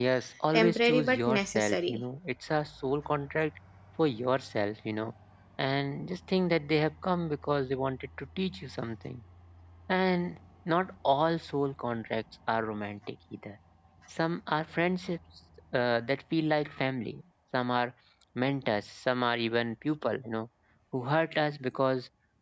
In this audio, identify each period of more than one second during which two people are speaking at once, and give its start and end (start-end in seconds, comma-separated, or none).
0.5-2.0